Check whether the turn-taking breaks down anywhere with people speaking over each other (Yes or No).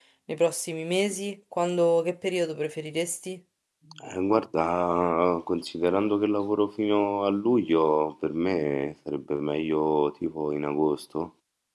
No